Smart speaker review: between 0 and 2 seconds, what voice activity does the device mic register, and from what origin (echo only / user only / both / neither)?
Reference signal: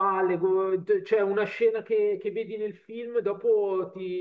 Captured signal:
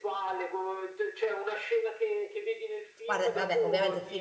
echo only